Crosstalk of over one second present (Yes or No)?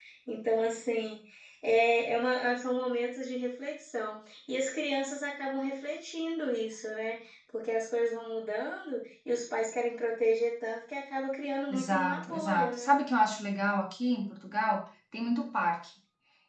Yes